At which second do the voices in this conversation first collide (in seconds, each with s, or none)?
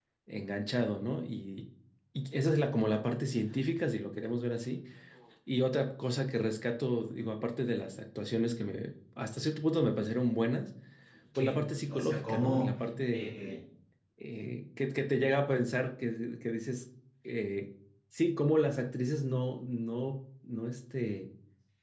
11.3 s